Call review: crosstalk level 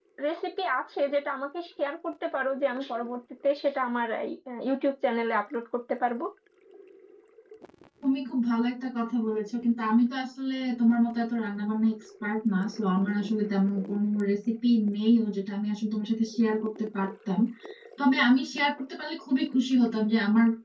none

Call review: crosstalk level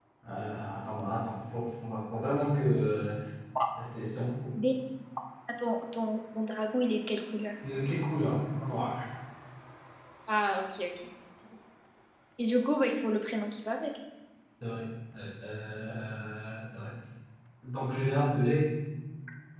none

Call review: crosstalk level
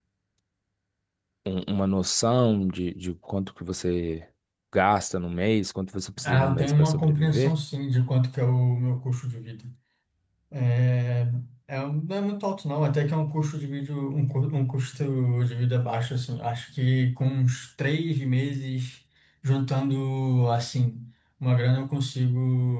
present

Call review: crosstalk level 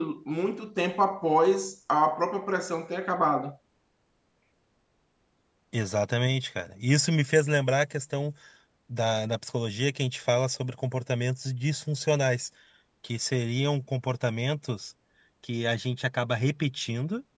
none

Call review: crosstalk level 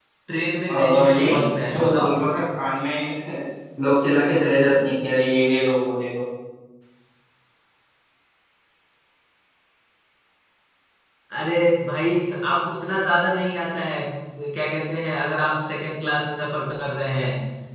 present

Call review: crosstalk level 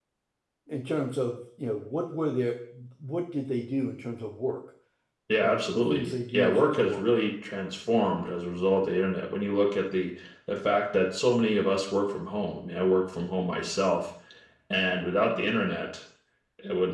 present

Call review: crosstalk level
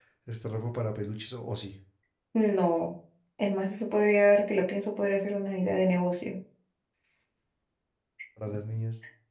none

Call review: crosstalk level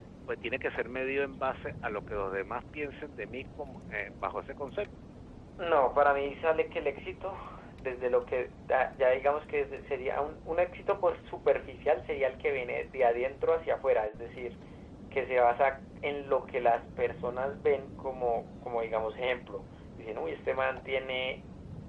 none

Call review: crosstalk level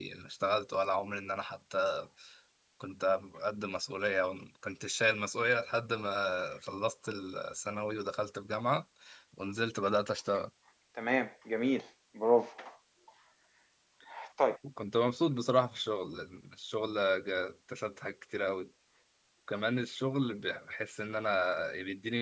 none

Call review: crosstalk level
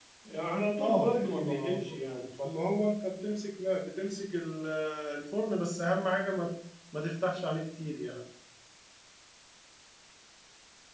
present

